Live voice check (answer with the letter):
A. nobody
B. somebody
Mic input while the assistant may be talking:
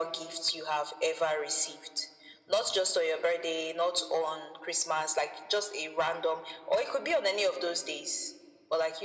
A